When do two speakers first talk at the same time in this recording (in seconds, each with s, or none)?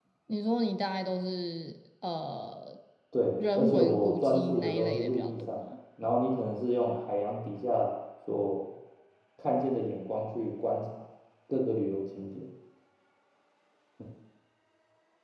3.5 s